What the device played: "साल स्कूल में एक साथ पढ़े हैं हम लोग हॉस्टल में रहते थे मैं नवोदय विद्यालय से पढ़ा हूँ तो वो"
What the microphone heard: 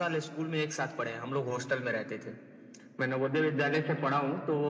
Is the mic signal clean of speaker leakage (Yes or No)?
No